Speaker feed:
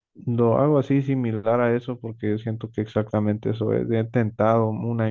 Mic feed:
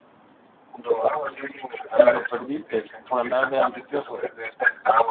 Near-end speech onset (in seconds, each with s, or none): 1.9 s